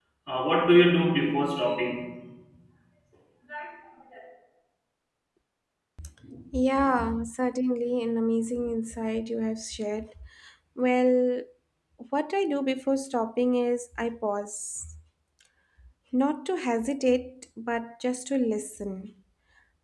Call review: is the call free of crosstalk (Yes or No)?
Yes